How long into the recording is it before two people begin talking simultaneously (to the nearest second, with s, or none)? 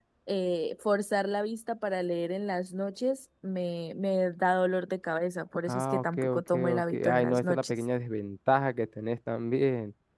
6 s